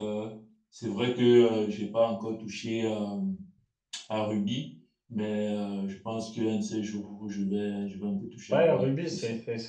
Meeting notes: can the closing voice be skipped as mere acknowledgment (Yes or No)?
No